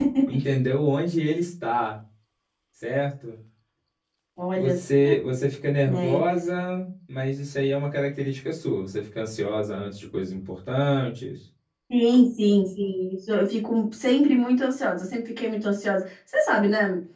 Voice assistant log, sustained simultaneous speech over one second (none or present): none